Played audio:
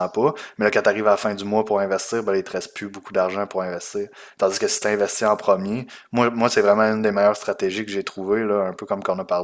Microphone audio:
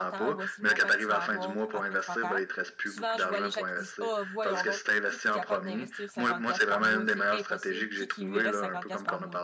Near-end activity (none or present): present